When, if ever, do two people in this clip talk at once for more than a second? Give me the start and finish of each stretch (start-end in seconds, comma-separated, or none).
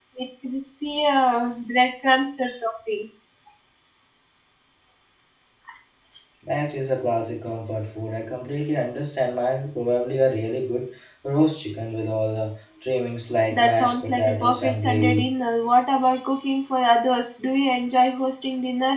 13.5-15.2